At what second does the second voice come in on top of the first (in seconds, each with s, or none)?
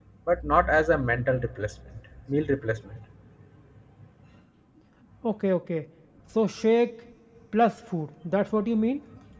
none